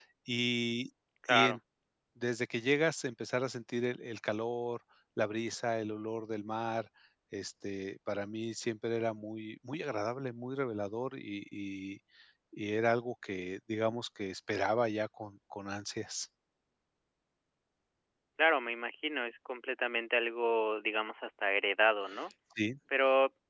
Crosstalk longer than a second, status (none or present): none